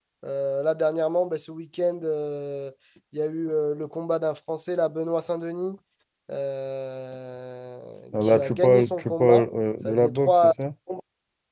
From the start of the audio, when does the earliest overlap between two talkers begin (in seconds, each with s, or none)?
8.1 s